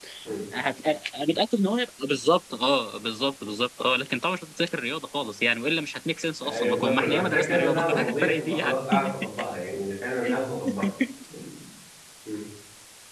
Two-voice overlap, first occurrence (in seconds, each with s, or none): 6.4 s